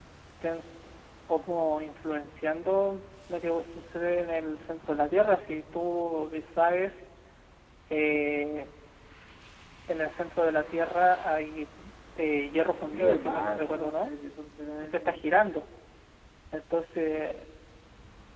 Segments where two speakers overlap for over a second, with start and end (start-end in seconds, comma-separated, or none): 12.7-14.1